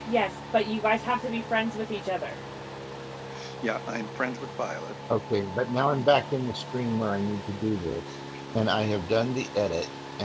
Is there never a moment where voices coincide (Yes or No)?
Yes